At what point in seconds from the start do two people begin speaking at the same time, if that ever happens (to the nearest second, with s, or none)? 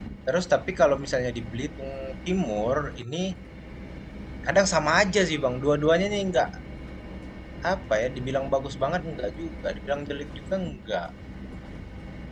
none